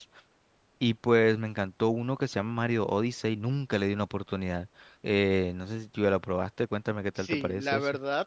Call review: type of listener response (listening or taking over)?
taking over